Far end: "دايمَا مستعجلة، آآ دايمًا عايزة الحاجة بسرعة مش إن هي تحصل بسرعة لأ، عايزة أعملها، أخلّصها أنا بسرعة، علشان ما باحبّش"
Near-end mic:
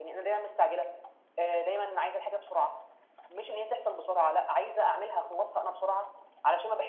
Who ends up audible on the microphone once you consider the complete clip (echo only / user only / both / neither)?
echo only